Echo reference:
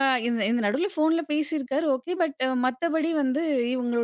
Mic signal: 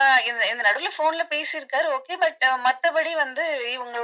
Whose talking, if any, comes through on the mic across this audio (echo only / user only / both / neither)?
echo only